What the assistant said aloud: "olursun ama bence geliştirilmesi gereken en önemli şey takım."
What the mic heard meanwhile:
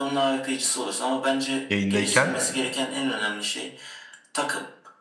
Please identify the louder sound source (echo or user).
user